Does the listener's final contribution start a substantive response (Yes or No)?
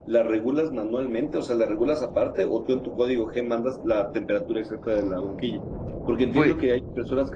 No